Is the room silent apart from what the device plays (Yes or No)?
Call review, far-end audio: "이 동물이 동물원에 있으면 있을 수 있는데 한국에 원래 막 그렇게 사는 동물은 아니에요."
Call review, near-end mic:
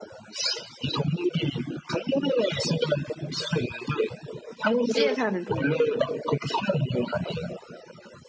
No